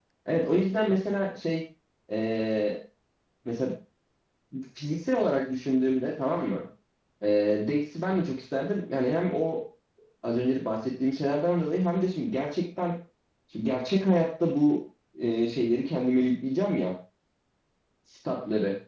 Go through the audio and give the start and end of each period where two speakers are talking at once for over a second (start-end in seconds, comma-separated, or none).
none